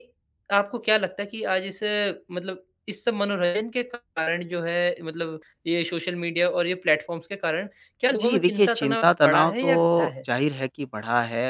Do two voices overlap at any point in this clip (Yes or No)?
Yes